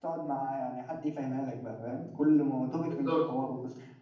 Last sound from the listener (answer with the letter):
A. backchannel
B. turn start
A